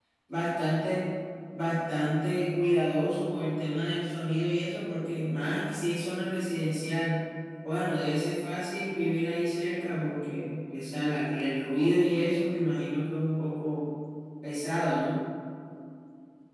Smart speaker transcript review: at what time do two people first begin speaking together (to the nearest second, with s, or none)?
none